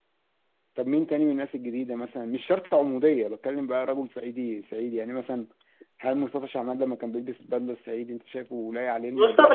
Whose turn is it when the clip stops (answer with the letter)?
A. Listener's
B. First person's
A